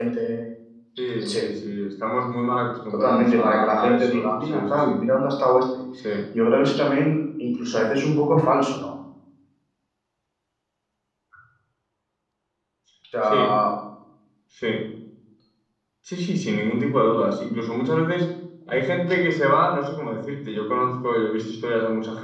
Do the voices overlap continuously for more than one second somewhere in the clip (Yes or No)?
Yes